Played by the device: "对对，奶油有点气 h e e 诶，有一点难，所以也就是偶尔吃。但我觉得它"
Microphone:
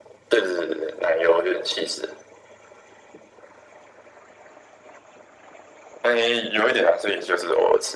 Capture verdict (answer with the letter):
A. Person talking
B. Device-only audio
B